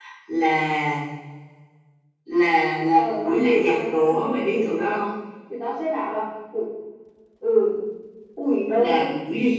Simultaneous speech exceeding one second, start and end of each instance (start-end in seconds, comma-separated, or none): 2.9-5.0